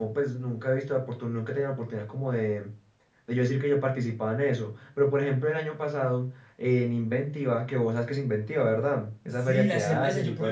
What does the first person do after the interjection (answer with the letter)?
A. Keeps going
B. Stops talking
B